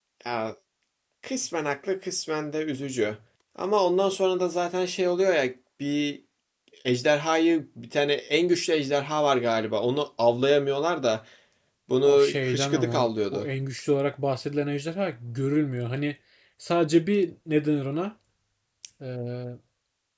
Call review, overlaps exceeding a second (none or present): present